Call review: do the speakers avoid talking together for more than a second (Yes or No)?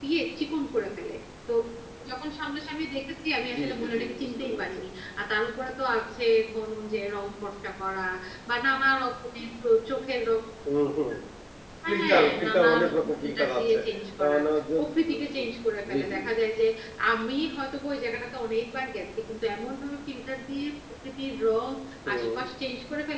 No